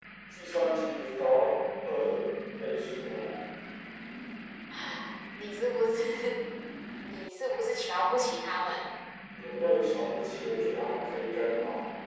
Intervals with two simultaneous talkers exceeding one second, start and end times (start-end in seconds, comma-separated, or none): none